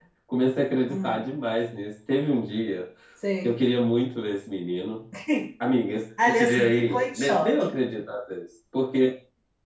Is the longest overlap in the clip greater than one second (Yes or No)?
Yes